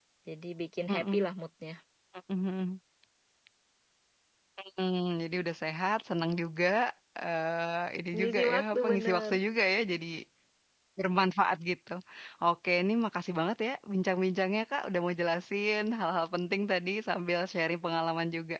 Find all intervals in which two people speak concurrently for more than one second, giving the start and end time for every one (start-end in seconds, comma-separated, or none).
8.2-9.4